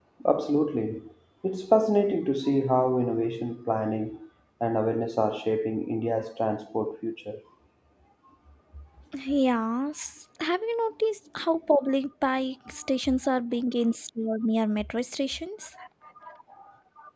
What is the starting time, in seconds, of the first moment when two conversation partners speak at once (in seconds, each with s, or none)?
none